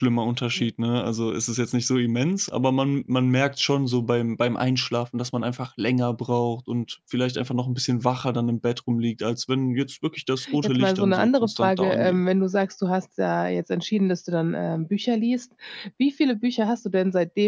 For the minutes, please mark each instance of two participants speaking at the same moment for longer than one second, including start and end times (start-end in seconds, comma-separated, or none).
10.6-12.2